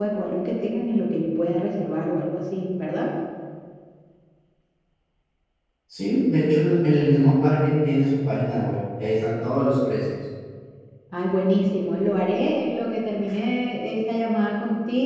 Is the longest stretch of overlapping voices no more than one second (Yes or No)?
Yes